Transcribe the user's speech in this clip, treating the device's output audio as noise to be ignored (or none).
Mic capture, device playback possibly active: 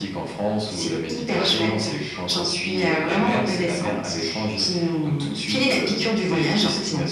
none